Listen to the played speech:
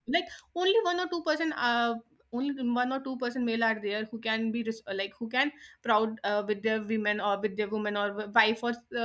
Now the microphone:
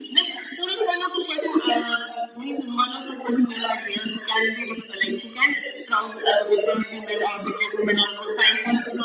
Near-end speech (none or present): none